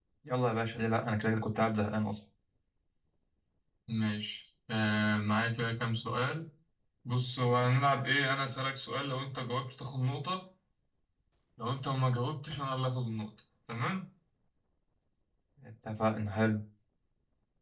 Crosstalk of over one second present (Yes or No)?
No